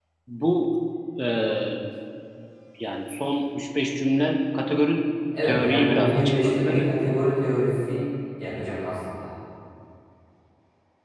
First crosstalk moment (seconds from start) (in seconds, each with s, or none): 5.4 s